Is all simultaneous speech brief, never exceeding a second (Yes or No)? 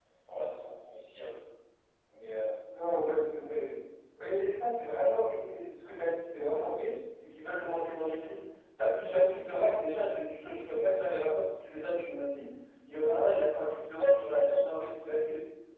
Yes